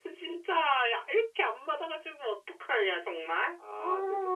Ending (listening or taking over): taking over